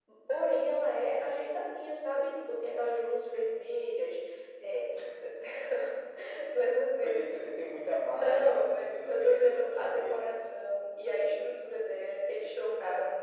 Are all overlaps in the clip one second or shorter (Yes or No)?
No